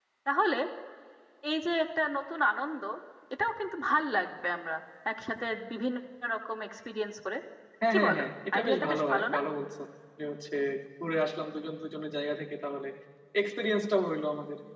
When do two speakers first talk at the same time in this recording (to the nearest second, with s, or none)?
8 s